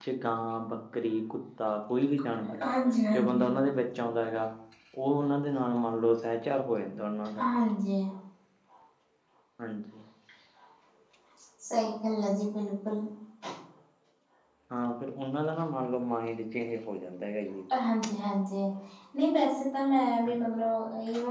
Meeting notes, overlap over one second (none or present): none